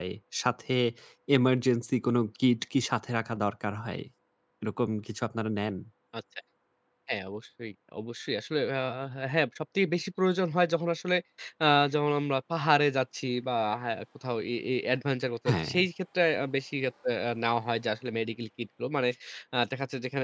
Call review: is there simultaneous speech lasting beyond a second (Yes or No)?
No